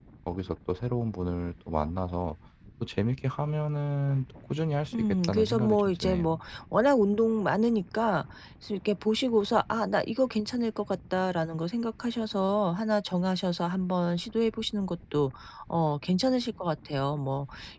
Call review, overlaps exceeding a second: present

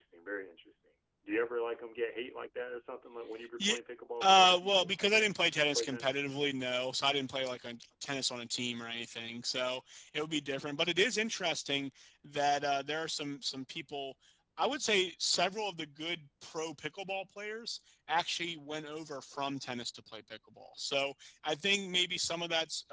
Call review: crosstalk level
present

